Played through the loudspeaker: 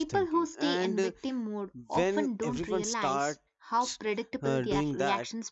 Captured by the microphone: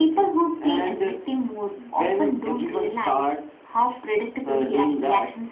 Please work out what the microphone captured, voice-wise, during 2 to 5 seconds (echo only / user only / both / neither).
echo only